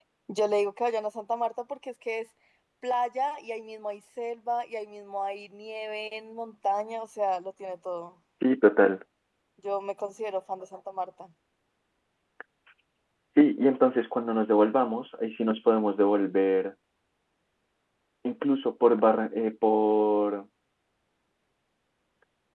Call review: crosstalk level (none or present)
none